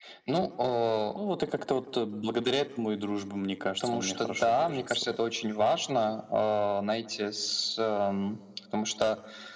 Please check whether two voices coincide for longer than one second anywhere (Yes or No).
Yes